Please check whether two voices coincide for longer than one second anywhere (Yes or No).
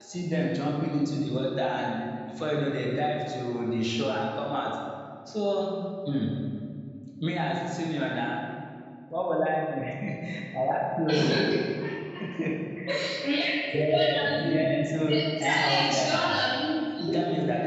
Yes